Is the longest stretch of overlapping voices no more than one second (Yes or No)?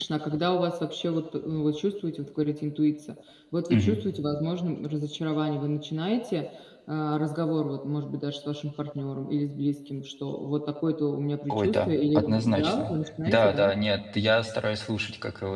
No